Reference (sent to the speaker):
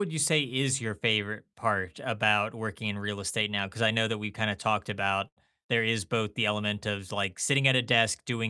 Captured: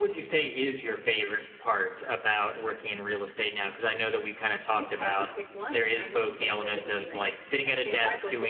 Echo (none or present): present